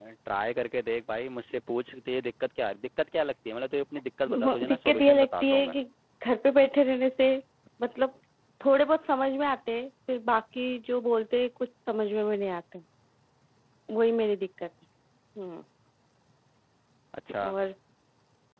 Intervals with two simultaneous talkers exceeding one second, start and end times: 4.4-5.8

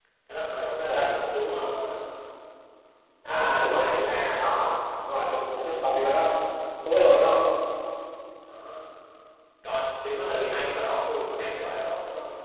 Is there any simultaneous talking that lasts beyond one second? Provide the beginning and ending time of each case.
3.3-4.6

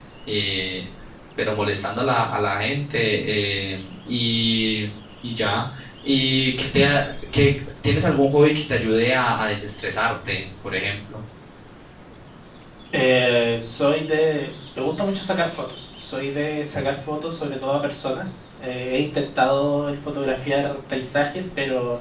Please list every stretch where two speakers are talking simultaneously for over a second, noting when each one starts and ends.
none

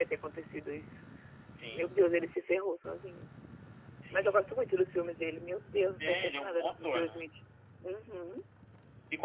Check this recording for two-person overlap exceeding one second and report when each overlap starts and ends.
6.0-7.2

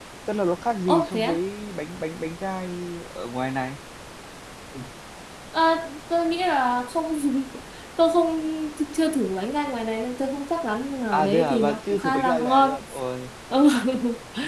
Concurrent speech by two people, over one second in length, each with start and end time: 11.1-12.7

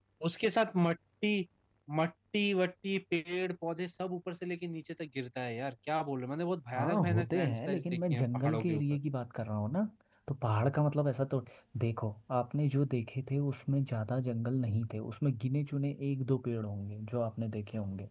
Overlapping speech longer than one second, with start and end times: 6.8-9.0

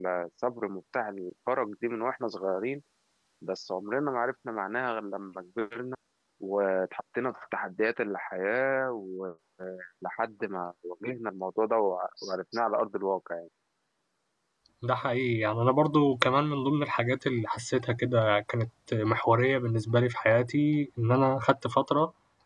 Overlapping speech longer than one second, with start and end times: none

